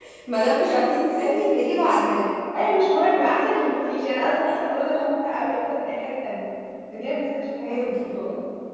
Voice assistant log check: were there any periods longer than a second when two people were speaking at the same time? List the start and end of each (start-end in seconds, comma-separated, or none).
none